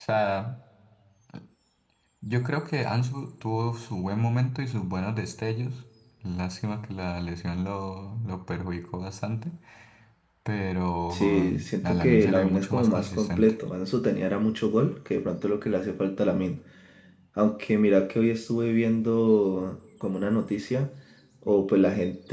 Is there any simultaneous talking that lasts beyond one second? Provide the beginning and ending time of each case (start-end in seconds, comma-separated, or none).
11.1-13.5